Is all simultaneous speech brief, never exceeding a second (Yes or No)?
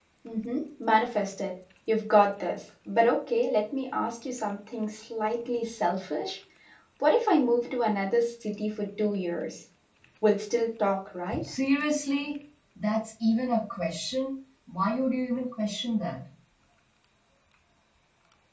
Yes